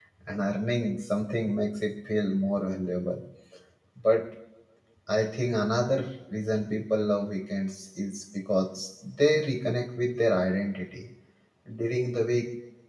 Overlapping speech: No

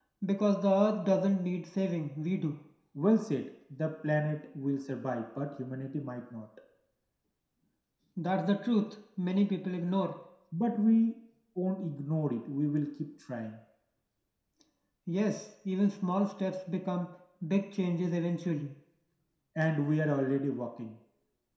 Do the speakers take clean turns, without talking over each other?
Yes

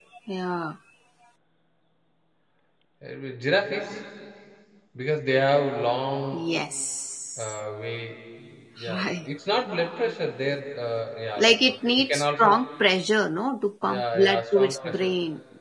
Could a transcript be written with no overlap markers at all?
No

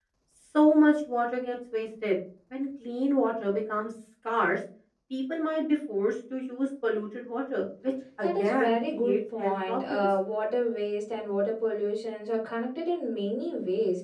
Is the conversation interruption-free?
No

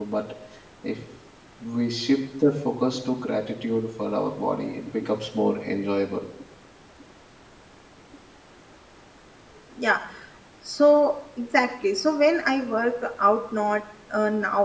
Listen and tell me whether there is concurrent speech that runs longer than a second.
No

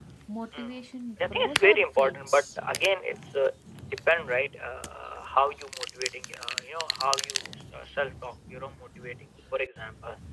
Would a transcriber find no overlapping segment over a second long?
No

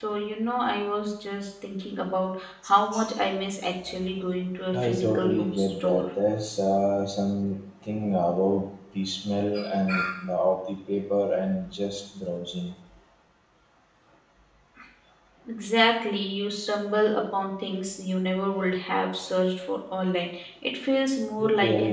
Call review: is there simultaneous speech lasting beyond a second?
Yes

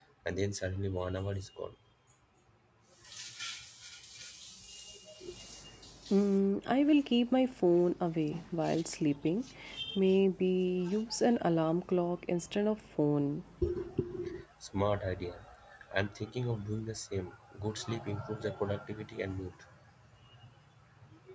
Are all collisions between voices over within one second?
Yes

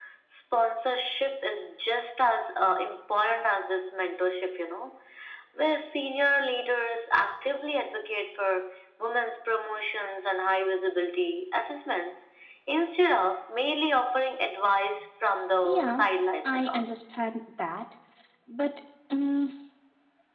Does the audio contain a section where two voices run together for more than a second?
No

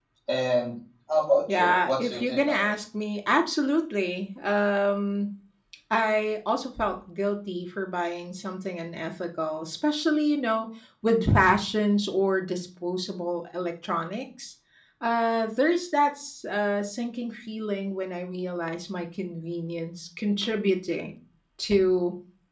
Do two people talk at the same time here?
Yes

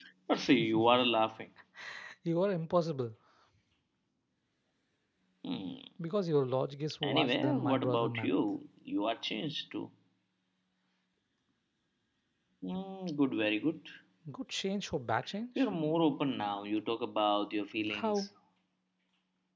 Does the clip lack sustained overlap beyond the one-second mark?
No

